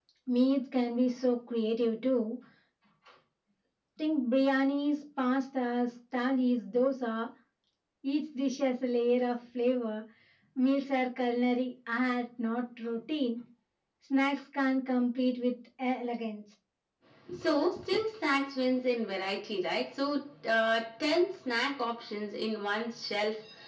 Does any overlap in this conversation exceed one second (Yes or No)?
No